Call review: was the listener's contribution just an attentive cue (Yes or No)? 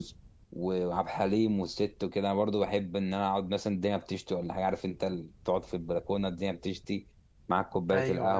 Yes